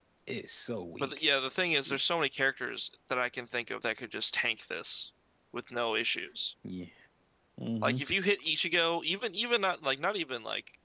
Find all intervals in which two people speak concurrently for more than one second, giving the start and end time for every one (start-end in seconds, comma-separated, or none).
none